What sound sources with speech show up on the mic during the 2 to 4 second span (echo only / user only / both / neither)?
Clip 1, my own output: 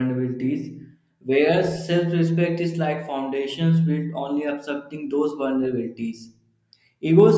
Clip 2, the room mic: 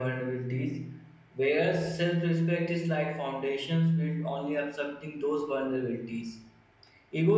echo only